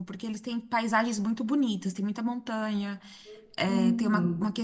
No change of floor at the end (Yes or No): Yes